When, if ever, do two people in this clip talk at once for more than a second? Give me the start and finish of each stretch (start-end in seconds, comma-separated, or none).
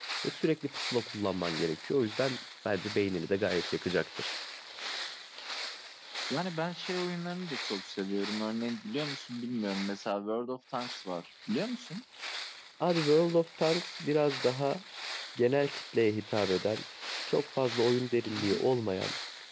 none